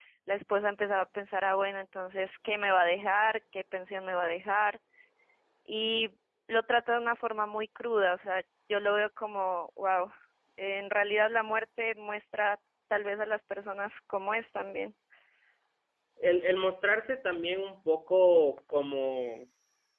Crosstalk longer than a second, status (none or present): none